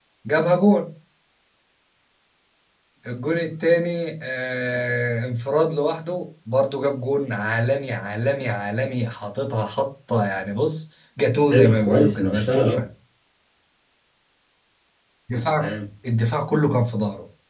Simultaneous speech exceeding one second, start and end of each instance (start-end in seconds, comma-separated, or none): 11.5-12.8